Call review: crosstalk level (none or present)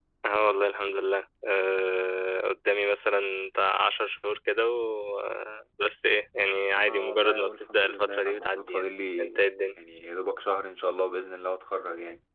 present